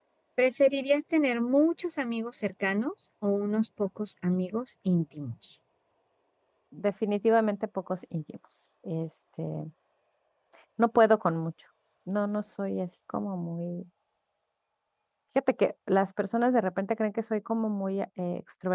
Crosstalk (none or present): none